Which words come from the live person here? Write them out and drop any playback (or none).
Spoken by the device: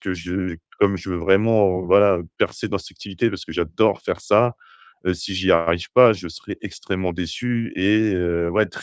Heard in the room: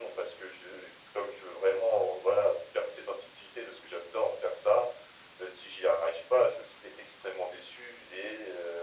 none